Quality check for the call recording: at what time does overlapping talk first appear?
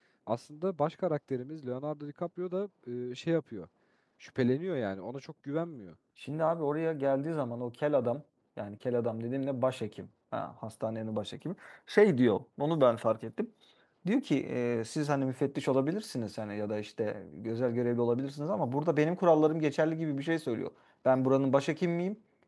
none

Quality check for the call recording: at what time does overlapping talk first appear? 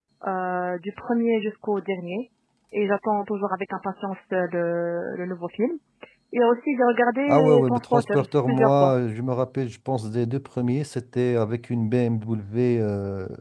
7.3 s

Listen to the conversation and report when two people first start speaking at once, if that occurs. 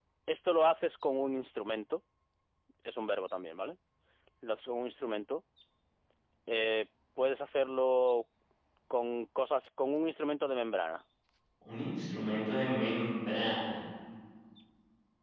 none

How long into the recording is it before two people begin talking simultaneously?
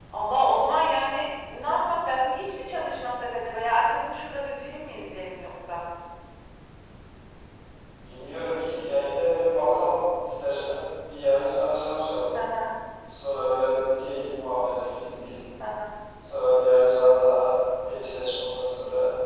none

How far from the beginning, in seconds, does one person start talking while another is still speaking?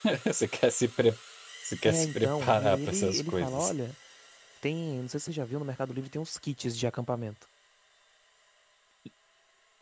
1.8 s

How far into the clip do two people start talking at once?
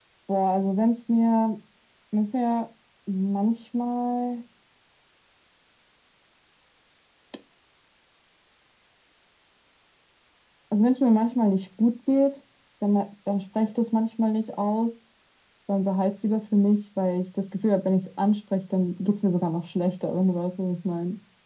none

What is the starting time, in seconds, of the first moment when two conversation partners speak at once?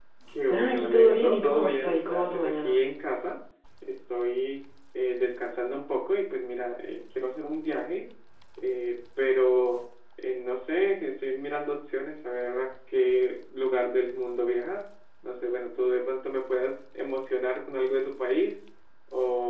0.5 s

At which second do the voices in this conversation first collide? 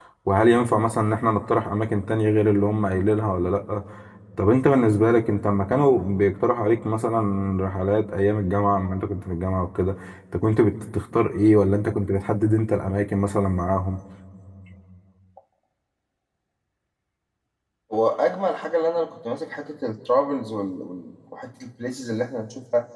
none

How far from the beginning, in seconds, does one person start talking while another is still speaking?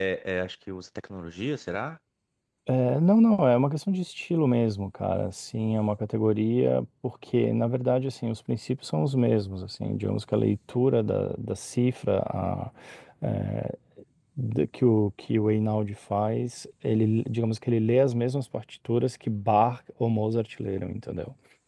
none

